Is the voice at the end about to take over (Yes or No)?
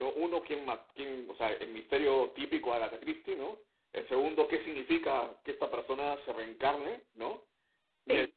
No